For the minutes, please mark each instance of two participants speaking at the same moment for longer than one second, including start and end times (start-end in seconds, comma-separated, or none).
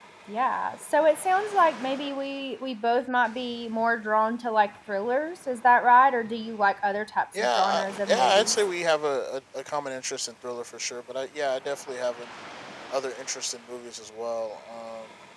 7.3-8.6